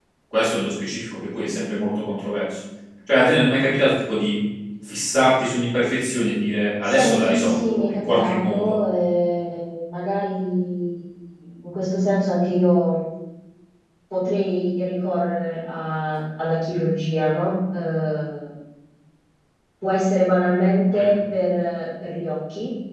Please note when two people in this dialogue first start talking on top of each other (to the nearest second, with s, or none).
7 s